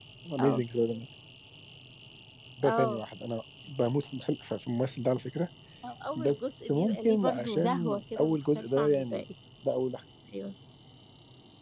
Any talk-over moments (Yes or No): Yes